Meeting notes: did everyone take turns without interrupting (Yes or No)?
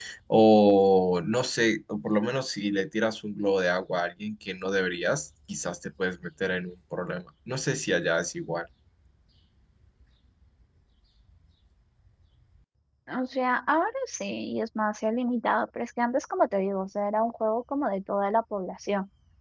Yes